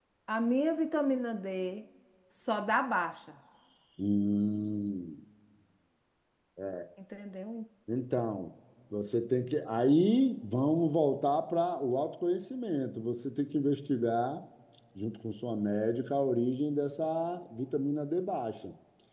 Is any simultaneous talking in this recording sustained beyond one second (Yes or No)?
No